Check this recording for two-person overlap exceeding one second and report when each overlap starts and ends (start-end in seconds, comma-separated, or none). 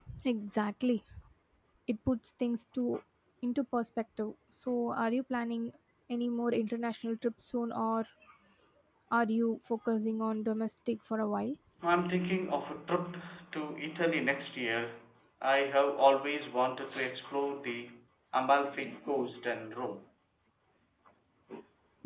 none